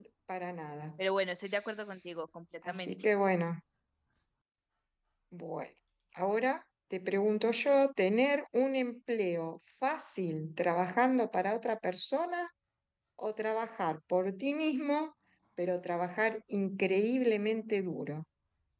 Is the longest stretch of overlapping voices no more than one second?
Yes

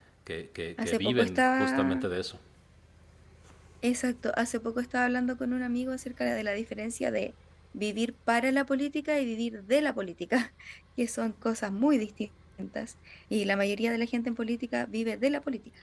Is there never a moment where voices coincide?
No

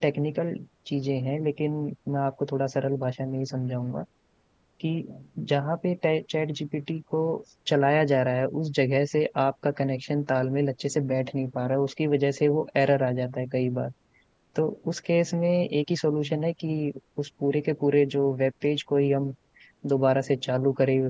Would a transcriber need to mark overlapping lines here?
No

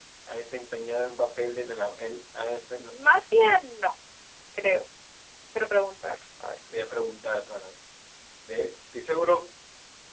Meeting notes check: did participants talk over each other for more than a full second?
No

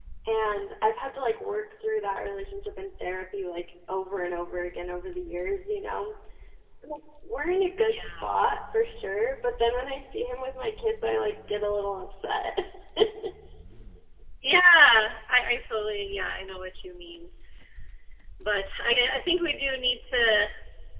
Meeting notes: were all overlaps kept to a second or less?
Yes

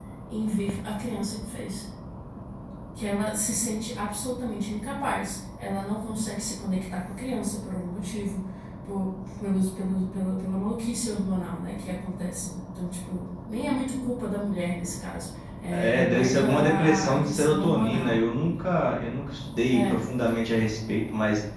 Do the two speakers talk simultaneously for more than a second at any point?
Yes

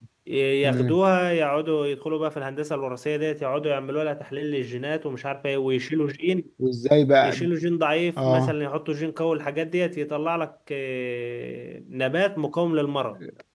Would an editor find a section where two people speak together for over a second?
No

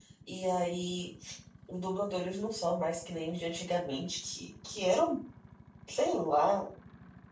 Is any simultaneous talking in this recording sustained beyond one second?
No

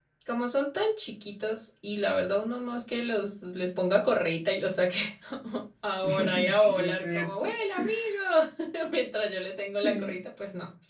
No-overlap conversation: No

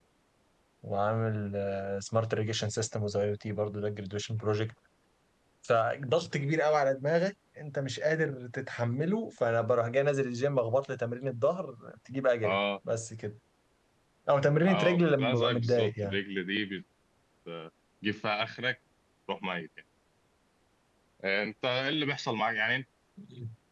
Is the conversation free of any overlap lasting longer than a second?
No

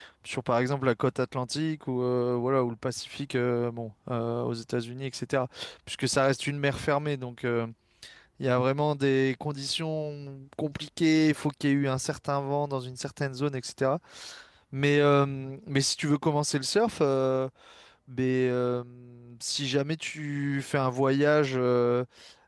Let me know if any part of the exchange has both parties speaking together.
No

